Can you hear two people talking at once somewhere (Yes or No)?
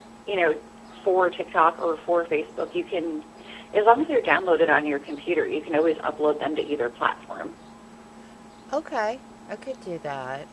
No